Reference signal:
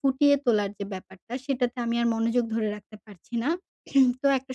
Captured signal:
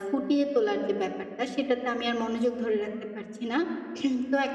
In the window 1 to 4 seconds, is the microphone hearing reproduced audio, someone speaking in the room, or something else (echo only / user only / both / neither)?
echo only